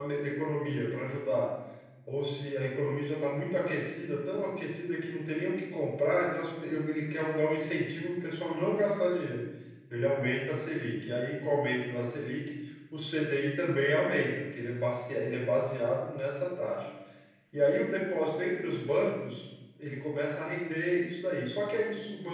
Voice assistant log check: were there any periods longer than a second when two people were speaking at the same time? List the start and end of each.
none

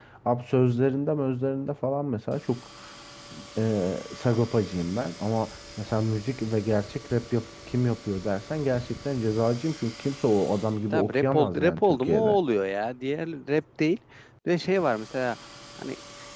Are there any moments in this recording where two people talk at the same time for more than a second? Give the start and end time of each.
10.8-12.4

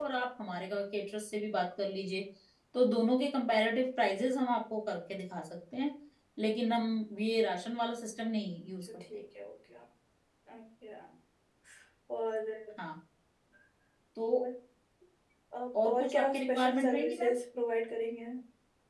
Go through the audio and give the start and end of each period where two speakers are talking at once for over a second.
15.8-17.3

